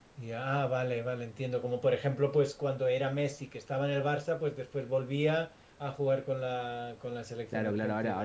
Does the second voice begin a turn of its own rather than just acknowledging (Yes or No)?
Yes